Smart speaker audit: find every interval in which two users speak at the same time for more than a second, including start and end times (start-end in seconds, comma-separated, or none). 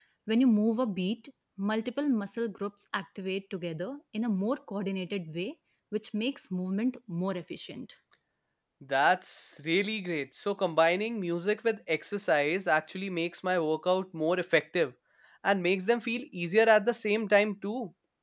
none